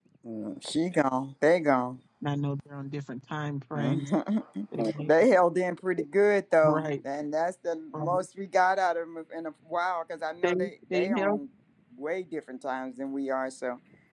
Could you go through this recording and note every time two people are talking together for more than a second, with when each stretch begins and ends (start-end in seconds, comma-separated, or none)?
none